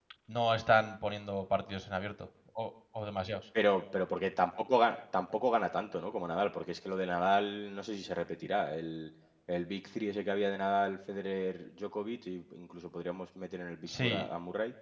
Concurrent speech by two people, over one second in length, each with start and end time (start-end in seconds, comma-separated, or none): none